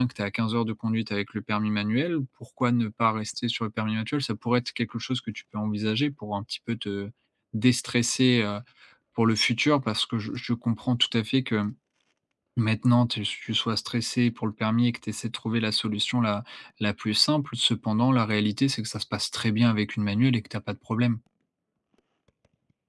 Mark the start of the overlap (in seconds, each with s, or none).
none